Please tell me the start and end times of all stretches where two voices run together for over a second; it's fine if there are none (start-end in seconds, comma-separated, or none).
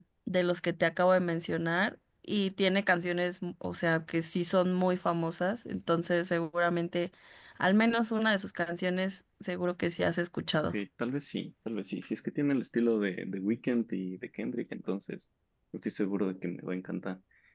none